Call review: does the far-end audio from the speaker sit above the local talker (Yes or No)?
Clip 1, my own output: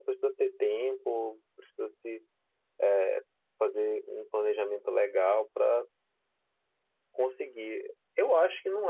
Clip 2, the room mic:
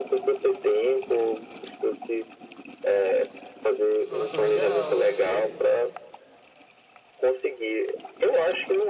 Yes